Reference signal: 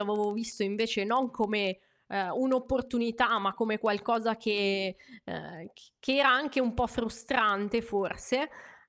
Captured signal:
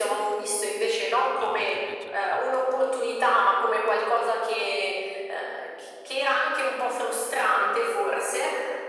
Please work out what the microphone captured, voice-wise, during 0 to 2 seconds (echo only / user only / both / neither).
both